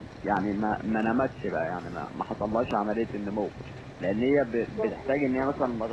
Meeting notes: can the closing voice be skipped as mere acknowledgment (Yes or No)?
Yes